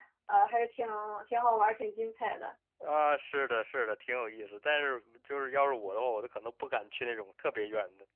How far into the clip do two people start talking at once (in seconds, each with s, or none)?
none